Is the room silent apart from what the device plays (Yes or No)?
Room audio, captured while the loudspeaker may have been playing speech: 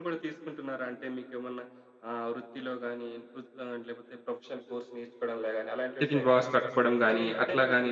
No